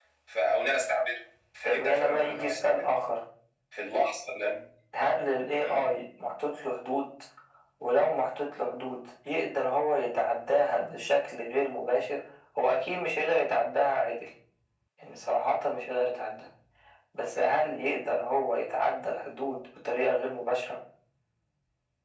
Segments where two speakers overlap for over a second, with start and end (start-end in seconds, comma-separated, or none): 1.6-2.9